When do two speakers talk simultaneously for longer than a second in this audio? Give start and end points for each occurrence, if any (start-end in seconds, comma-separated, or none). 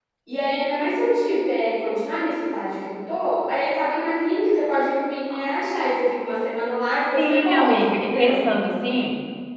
7.2-8.4